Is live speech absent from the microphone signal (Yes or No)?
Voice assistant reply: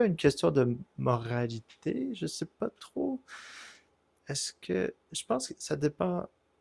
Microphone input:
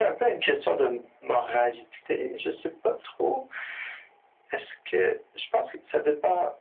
Yes